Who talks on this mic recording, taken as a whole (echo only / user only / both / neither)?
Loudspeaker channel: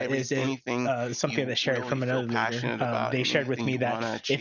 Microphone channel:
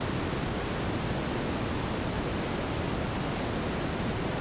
neither